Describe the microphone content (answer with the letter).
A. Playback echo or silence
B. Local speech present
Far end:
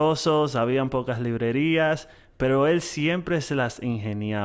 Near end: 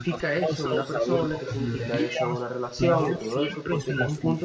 B